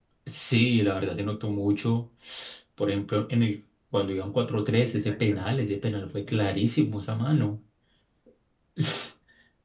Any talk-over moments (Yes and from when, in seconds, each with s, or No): Yes, from 4.7 s